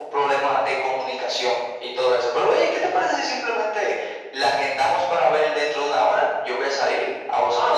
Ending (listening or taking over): taking over